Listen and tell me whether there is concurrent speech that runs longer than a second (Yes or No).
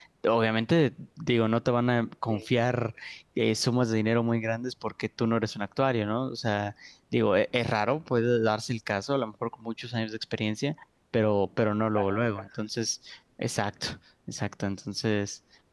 Yes